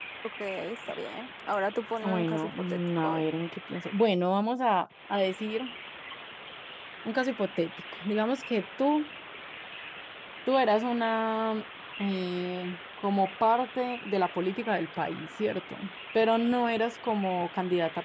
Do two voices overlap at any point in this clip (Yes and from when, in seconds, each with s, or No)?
Yes, from 2.0 s